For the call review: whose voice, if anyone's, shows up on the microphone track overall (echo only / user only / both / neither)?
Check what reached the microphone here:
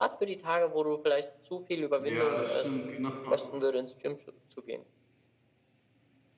both